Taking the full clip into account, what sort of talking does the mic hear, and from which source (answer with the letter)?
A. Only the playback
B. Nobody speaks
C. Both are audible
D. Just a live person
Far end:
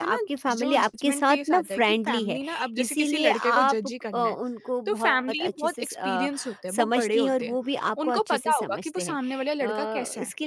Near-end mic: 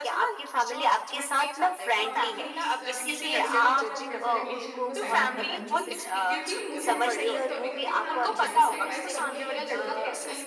C